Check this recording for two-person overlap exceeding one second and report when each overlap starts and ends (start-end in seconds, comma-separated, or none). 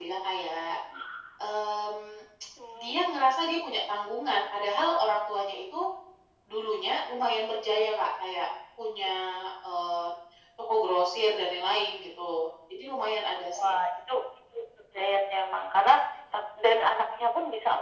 none